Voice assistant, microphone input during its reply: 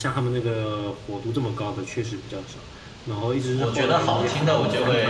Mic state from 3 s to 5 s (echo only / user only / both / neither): both